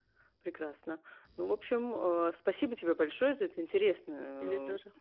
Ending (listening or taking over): listening